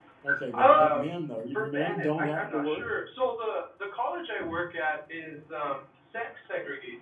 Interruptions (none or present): present